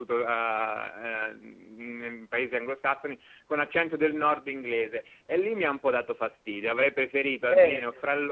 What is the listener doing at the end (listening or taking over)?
listening